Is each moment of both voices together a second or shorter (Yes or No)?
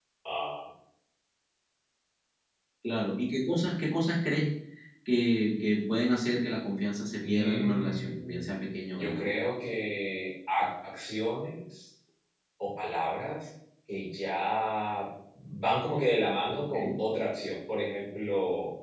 No